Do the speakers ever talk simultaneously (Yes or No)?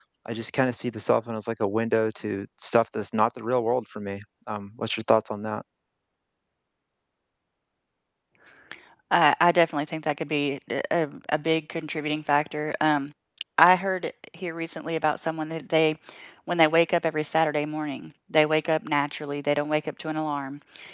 No